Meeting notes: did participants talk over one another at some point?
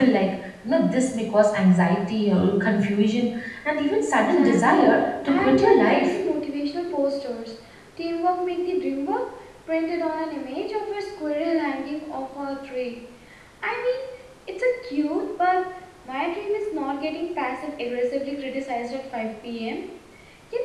Yes, from 4.2 s

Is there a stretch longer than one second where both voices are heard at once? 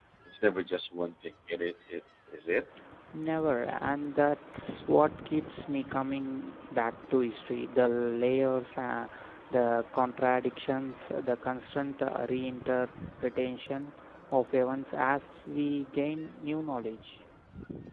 No

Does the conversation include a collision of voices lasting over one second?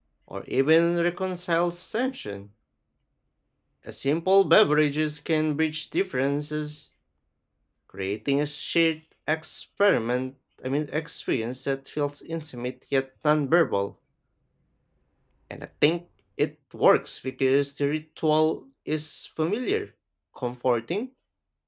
No

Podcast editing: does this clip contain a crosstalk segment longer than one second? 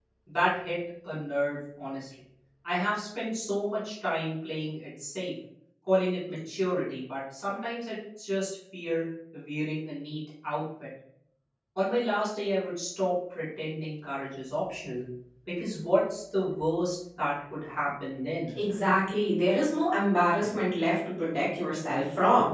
No

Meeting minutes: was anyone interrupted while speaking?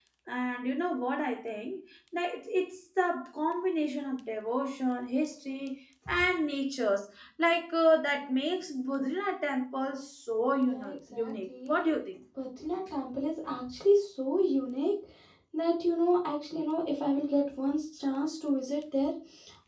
Yes, from 10.7 s

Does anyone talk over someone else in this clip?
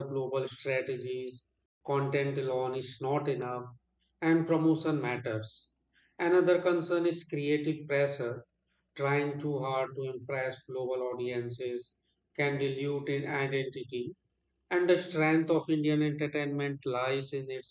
No

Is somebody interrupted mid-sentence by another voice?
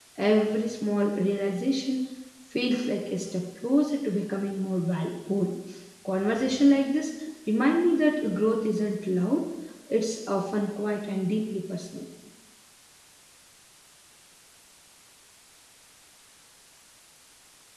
No

